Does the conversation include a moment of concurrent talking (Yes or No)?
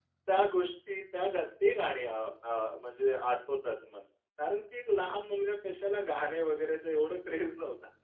No